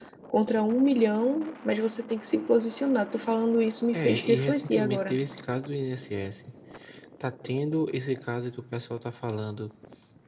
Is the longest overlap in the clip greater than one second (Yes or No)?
Yes